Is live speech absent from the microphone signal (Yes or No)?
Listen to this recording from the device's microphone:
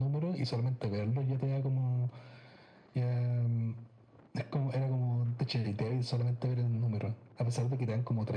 Yes